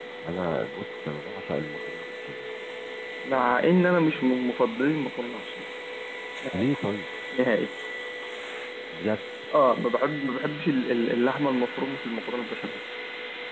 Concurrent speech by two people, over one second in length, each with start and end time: none

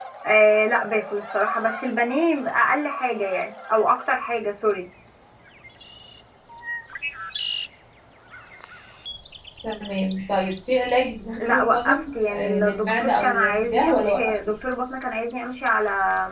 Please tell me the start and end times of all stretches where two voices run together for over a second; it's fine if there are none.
11.4-14.5

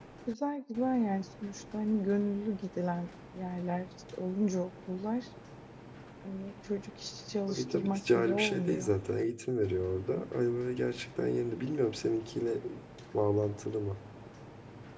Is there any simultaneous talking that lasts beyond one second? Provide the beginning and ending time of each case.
7.5-8.9

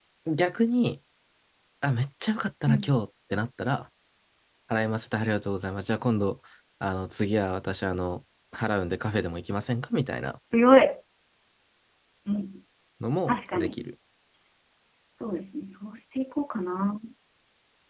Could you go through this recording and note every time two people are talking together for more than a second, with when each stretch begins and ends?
none

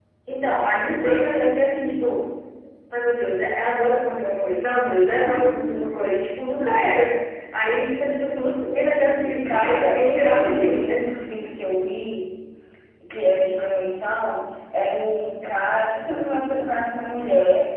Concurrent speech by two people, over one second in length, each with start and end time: 9.4-11.1

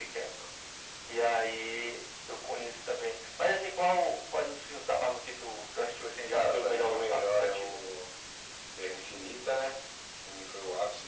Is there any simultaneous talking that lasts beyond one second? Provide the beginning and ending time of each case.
6.3-7.8

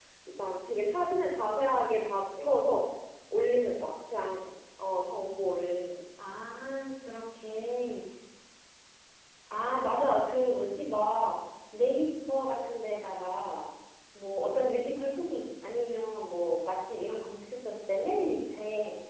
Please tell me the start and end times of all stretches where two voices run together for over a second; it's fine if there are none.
none

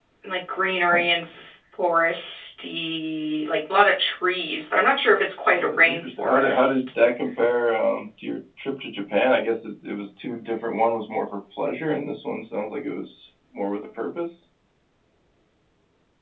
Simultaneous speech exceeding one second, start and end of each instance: 5.5-6.8

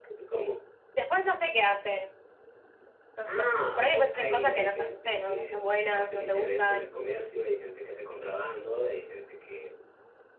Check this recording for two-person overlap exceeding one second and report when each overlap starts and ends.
3.2-6.9

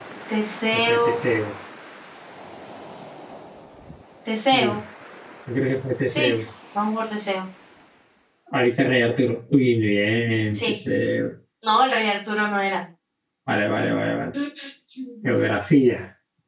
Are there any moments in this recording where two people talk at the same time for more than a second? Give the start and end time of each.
none

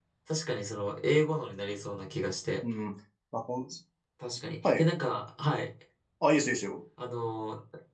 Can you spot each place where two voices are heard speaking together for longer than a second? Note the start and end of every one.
none

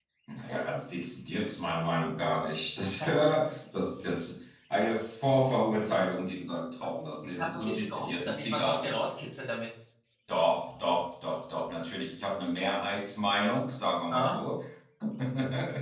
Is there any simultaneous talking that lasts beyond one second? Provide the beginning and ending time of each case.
7.1-9.0

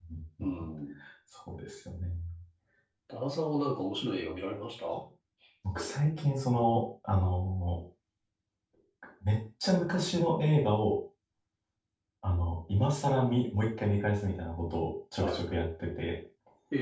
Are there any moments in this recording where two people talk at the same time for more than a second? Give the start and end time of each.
none

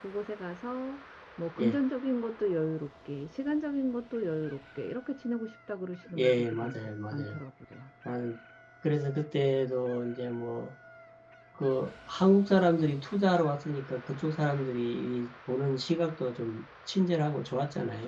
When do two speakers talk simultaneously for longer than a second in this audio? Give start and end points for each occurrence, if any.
6.2-7.4

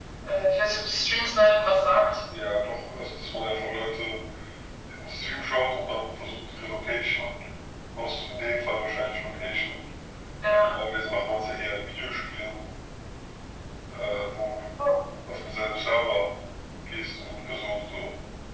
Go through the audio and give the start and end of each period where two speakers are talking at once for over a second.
none

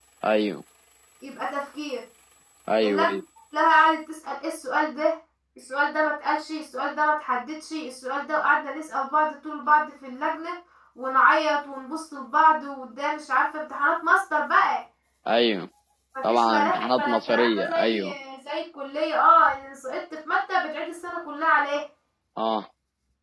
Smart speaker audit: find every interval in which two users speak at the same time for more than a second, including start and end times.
16.3-18.0

